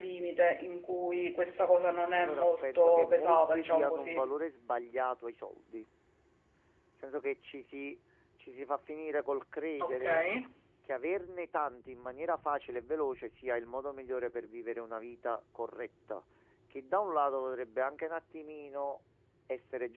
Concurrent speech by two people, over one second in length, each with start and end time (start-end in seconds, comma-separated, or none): 2.1-4.3